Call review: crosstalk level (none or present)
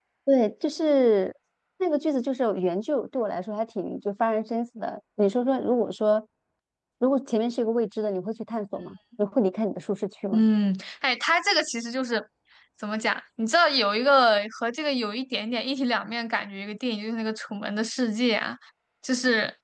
none